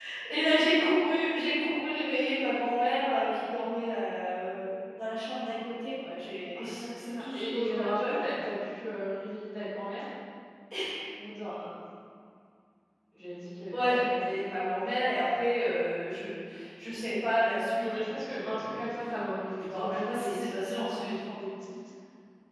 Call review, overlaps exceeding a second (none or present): present